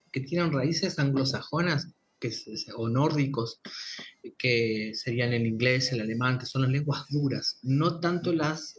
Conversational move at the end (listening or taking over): listening